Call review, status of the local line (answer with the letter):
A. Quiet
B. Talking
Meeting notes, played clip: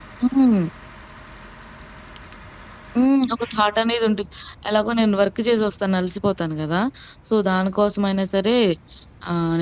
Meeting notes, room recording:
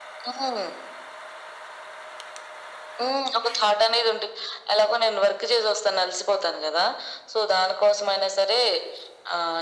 A